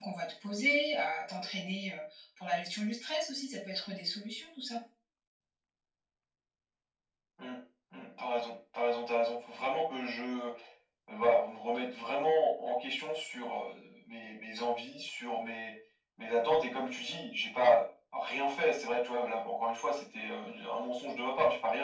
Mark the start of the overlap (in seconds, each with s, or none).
none